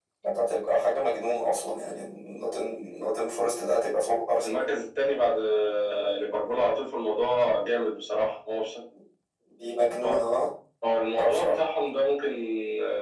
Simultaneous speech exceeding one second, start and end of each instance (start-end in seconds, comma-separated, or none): none